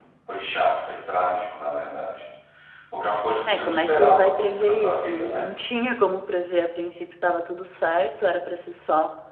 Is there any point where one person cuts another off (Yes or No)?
Yes